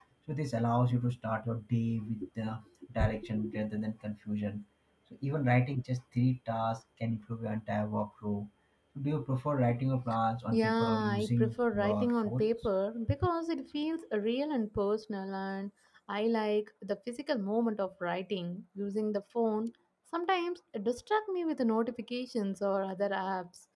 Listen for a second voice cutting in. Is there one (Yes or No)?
Yes